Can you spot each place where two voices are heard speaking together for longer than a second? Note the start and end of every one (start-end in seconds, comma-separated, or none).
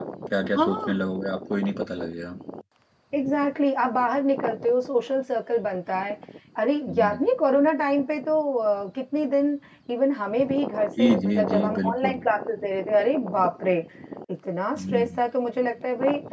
11.0-12.2